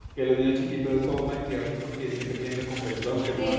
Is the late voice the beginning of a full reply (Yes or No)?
Yes